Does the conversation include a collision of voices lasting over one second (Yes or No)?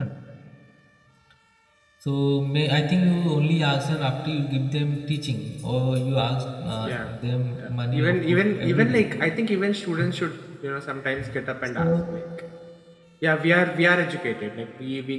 Yes